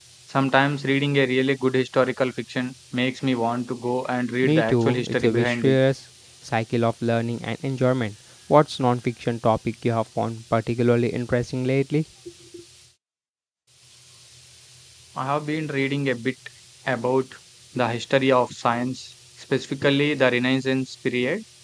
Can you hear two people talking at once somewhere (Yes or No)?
Yes